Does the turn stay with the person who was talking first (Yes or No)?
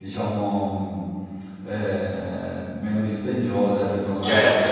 No